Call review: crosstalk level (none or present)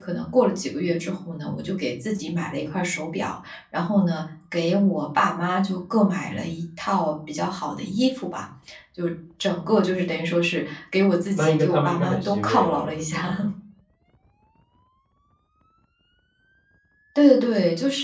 present